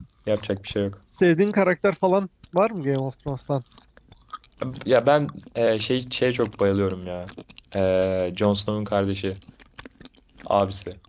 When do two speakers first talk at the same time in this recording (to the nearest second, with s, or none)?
none